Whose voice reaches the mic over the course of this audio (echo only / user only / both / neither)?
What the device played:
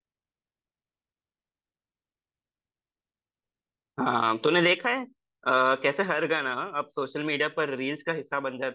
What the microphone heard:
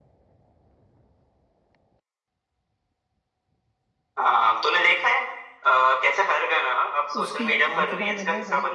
both